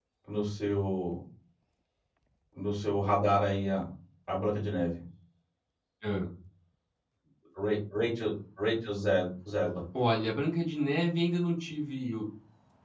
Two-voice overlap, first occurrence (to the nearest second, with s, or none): none